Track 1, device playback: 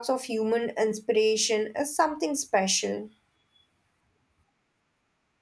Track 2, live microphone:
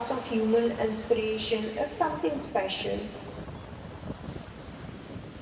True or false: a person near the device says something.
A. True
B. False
B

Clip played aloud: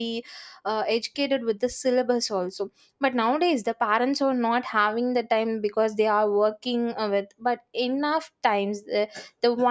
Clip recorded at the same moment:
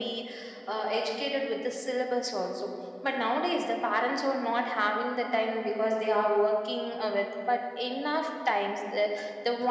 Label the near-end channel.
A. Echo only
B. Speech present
A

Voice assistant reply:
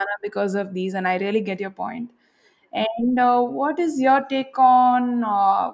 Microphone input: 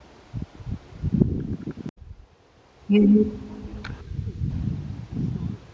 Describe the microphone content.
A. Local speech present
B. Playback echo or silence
A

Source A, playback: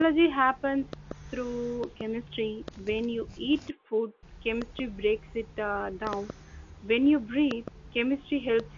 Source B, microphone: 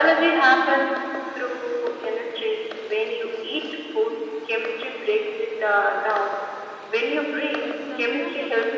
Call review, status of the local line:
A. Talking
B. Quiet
A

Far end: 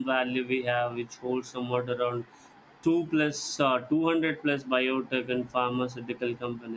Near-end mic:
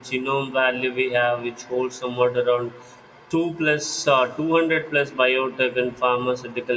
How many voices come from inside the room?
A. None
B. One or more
A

